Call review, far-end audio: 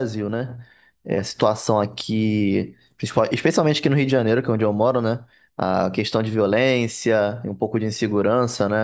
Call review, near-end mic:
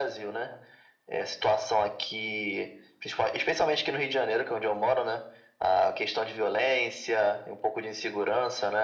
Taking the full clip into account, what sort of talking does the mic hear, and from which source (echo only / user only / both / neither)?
echo only